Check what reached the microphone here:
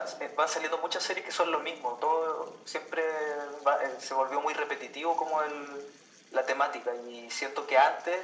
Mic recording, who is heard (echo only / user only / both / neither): echo only